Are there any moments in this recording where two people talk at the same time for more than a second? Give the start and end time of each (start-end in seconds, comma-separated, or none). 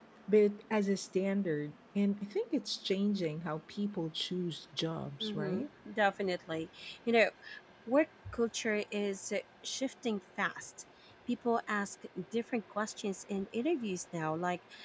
none